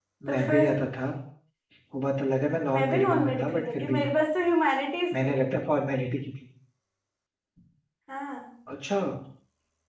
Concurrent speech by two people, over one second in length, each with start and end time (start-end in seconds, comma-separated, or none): 2.7-4.0